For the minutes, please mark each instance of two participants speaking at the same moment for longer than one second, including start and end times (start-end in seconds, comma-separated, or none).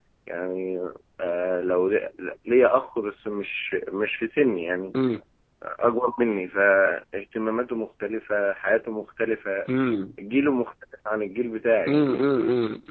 none